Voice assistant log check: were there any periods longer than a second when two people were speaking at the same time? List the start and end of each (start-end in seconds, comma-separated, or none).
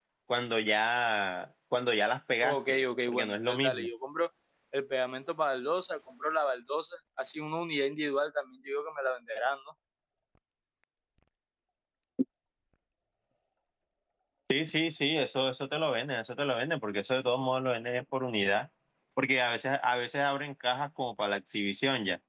2.4-3.9